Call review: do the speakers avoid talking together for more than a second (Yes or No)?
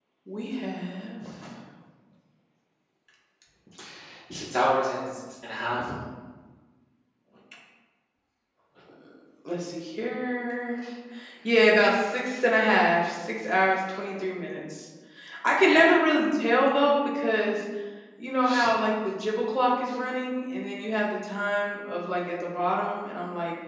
Yes